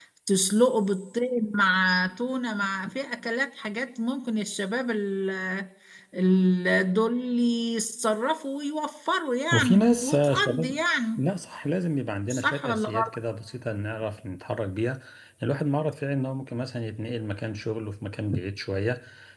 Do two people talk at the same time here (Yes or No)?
Yes